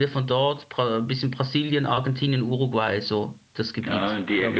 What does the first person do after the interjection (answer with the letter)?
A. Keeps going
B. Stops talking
B